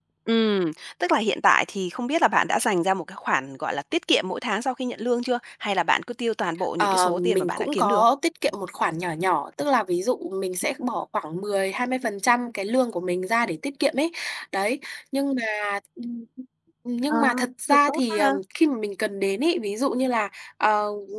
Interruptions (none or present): present